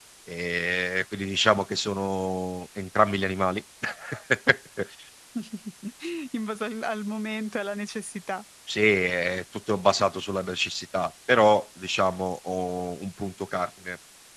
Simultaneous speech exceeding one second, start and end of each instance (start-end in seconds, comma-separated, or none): none